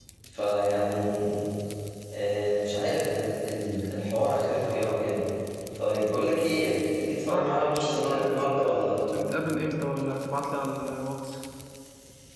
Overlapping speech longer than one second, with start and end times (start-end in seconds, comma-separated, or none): 7.3-8.8